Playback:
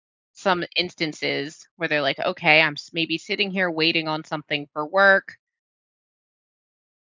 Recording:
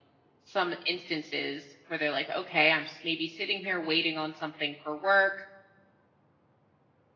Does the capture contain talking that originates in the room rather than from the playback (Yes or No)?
No